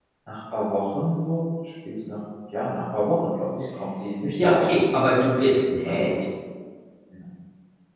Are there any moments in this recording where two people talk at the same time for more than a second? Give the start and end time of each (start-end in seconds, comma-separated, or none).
none